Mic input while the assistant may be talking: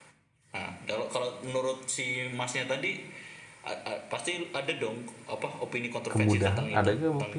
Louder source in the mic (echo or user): user